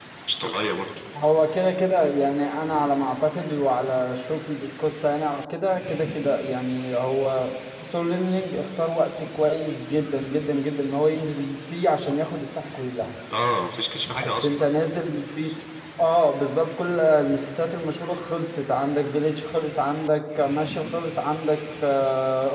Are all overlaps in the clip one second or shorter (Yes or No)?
Yes